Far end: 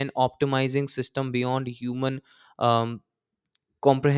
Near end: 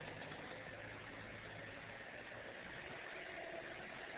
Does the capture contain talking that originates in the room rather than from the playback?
No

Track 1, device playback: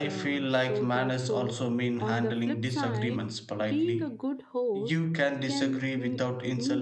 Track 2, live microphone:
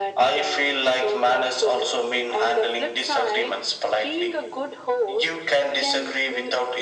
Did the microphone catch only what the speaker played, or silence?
Yes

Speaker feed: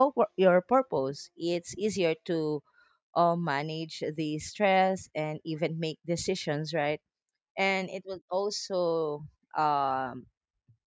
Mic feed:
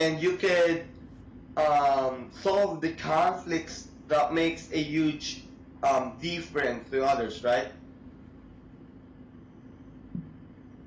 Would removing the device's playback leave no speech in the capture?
No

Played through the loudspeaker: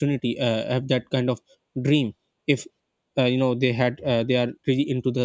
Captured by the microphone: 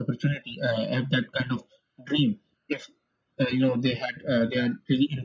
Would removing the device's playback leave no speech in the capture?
Yes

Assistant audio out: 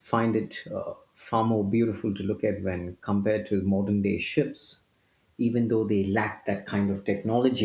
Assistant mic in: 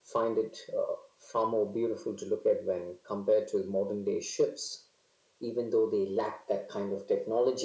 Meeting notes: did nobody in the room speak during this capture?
Yes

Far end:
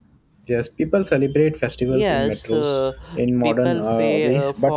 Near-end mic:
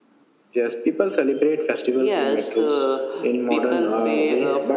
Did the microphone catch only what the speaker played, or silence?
Yes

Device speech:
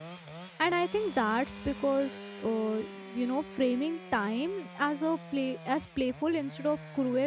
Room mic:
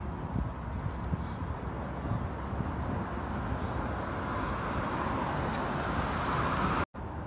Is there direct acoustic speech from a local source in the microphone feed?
No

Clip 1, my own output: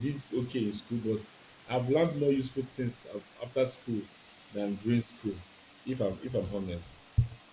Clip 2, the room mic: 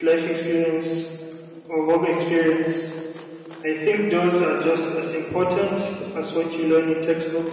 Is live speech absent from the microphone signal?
No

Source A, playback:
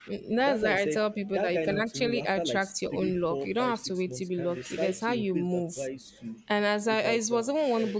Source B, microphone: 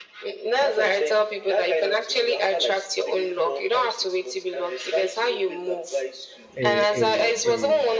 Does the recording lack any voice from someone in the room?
No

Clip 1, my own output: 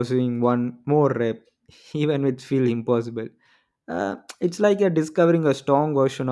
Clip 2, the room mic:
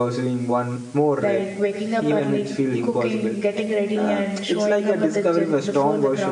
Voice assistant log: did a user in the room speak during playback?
Yes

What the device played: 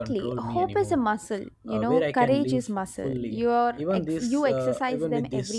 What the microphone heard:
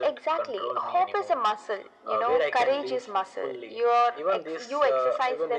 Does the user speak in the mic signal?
No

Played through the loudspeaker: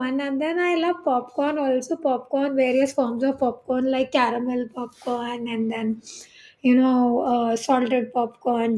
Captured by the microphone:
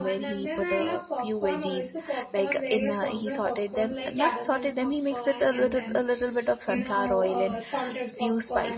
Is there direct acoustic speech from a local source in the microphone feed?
Yes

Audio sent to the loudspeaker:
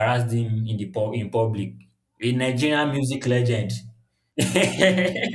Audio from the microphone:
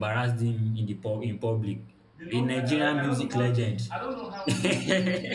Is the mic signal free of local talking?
No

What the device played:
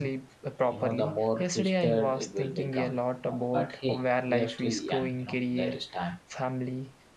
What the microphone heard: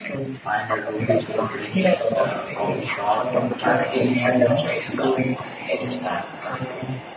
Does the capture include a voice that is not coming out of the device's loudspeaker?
Yes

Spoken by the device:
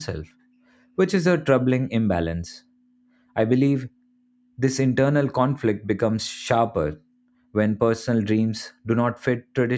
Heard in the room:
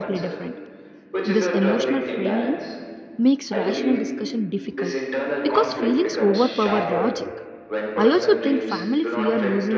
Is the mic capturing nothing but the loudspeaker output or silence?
No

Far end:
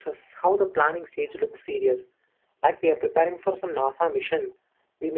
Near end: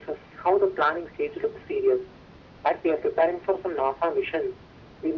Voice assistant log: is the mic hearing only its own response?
Yes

